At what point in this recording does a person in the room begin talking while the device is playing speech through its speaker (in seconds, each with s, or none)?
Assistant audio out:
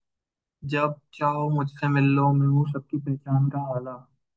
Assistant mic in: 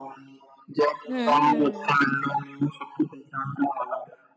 1.1 s